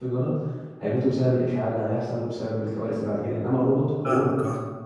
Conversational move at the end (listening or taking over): listening